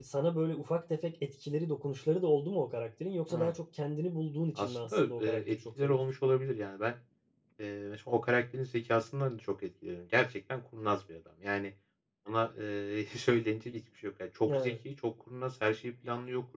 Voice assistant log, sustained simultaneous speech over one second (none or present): present